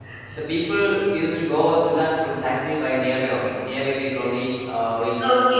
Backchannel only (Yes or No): No